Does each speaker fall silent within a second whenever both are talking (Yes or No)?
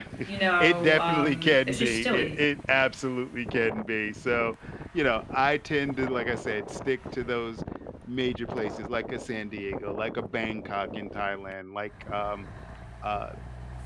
No